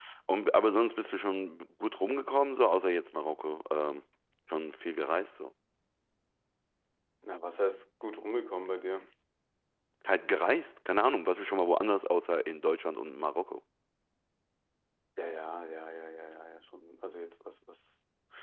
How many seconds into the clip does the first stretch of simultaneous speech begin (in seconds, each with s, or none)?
none